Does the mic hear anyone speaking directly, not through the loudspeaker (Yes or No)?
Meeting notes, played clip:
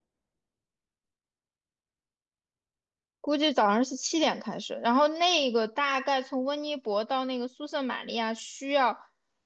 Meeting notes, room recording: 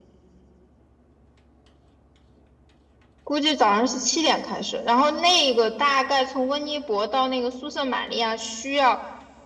No